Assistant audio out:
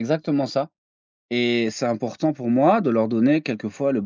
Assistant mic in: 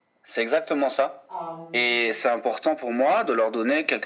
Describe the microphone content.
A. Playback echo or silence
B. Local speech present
B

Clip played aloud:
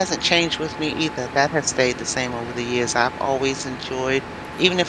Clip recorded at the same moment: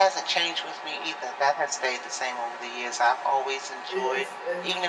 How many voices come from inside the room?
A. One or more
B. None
A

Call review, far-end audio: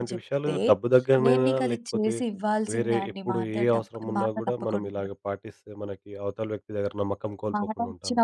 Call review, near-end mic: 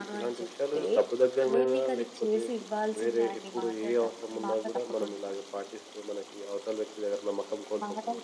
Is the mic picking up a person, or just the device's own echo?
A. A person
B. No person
B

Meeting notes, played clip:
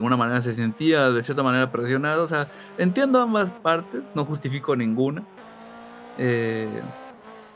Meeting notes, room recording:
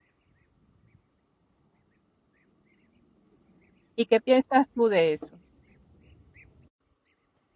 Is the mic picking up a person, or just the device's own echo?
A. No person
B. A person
B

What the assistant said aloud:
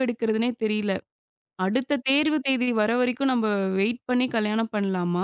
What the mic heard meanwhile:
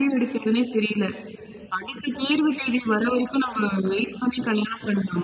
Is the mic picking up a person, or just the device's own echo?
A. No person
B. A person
A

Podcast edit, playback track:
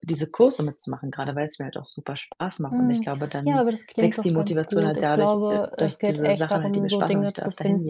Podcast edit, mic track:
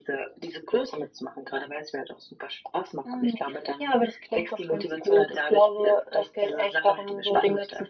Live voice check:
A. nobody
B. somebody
A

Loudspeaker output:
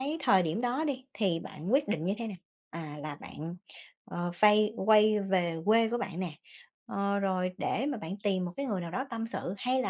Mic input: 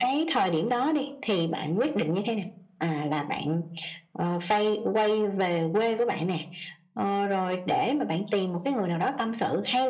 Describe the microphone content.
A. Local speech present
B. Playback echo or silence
B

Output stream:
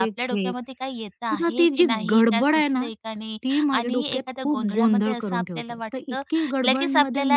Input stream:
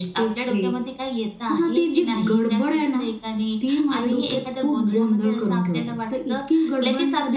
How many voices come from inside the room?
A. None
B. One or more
A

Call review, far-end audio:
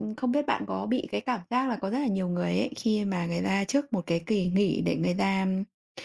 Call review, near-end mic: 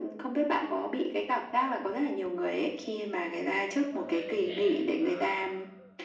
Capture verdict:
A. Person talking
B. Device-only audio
A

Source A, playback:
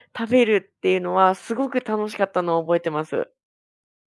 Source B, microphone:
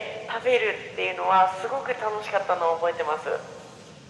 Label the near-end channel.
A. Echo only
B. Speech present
A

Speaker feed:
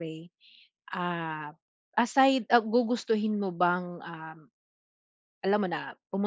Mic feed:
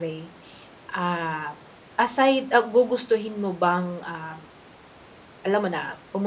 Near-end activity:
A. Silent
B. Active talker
A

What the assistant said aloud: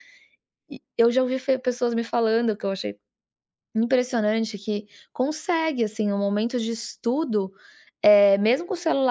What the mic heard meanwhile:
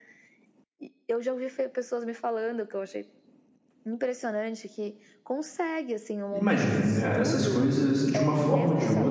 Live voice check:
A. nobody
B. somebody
B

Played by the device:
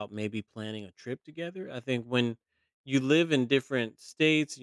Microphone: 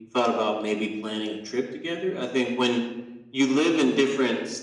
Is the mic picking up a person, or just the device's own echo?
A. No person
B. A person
A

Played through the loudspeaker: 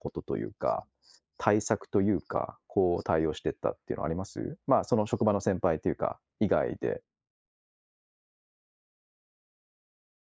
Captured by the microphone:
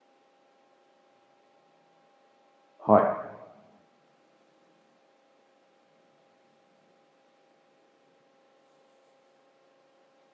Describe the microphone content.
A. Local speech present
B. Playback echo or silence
A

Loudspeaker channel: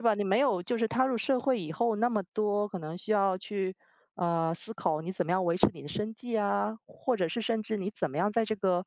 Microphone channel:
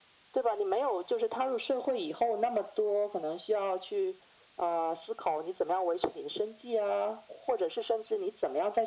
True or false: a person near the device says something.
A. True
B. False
B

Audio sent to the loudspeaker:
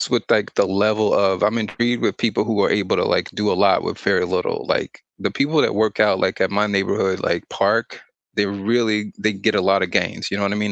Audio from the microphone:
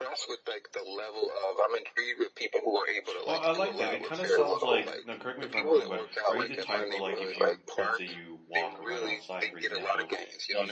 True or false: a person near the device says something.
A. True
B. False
A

